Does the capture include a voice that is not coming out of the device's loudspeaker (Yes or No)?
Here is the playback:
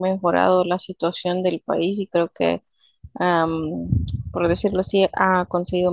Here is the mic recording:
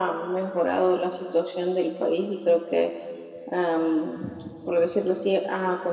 No